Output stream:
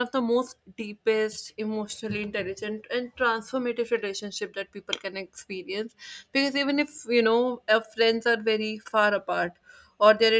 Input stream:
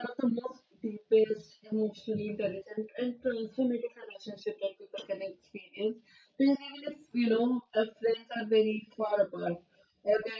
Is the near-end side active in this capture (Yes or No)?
No